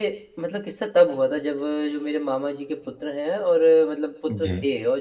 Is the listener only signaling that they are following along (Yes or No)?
Yes